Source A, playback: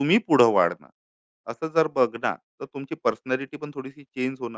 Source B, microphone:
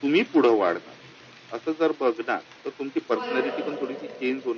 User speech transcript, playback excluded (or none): बरोबर.